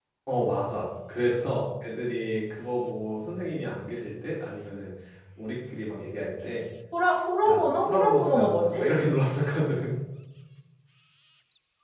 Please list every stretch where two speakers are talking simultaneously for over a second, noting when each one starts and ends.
7.5-8.8

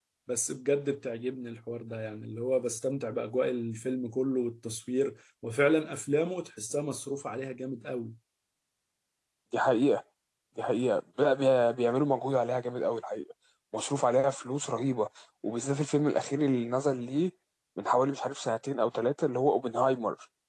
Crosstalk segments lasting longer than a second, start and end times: none

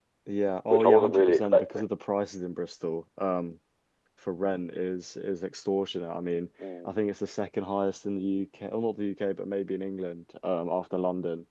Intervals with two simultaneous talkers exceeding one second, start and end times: 0.7-1.9

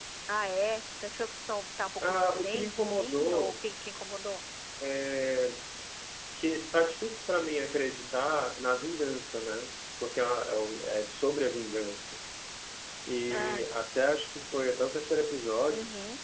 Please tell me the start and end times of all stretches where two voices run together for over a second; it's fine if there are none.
2.0-3.5

